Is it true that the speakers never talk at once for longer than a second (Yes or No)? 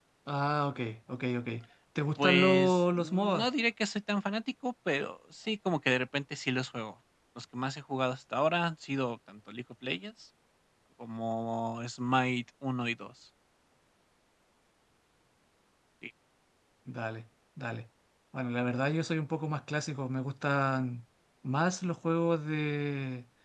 No